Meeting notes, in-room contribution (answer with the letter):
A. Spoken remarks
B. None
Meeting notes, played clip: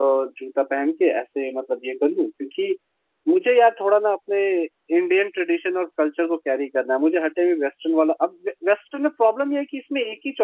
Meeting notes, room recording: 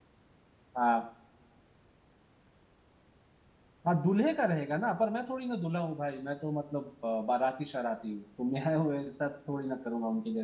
A